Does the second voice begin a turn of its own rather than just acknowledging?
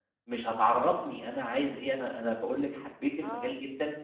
No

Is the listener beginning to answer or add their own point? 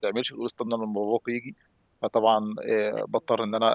No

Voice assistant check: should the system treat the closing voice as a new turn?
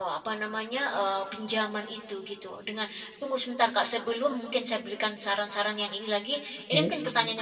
No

